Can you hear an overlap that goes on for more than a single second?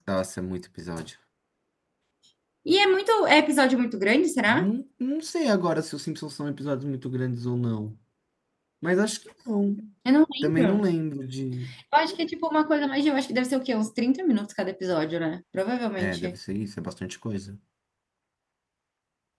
No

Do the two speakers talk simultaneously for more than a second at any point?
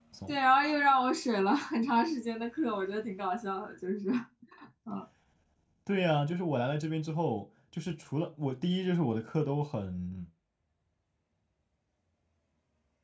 No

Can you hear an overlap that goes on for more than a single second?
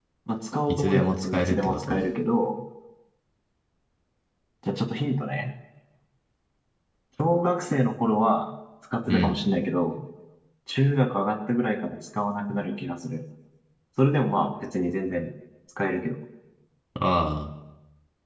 Yes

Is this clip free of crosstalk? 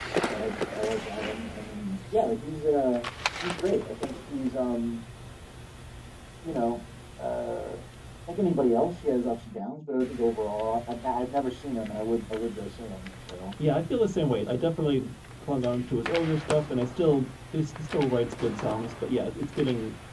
Yes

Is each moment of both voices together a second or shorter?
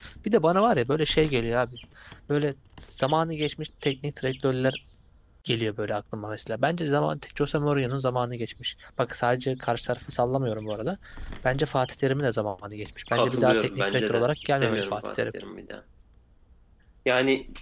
No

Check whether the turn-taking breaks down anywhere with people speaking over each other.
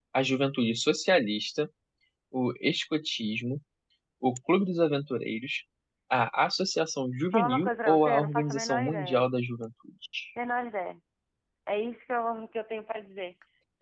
Yes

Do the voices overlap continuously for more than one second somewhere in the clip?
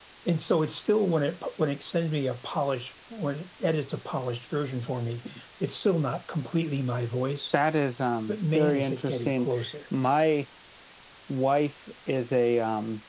Yes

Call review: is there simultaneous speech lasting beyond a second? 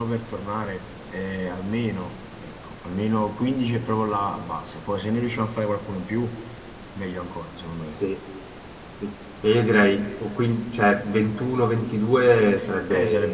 No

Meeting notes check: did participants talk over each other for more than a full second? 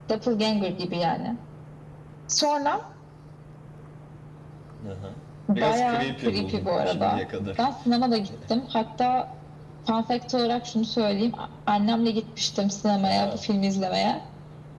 Yes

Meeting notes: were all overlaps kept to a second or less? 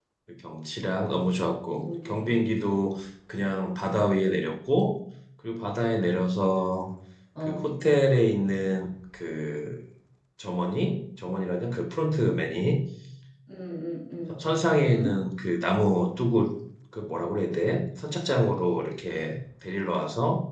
No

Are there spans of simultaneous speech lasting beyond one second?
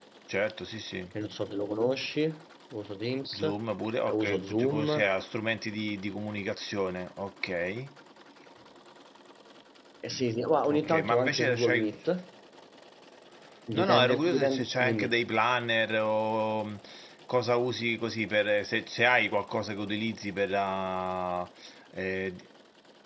Yes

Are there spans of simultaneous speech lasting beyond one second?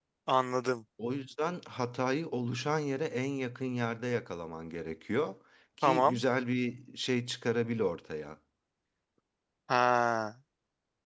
No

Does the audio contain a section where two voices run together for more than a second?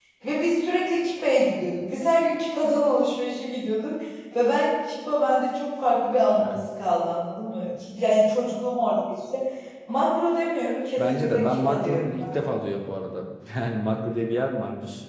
Yes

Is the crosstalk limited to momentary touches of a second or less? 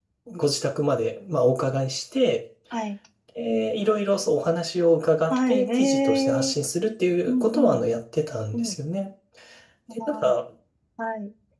No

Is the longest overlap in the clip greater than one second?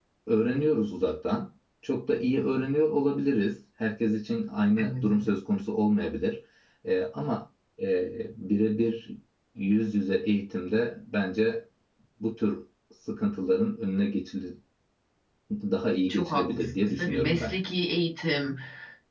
Yes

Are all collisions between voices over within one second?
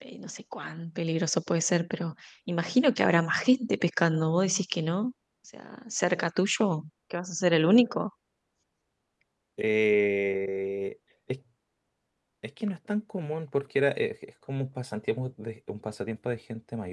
Yes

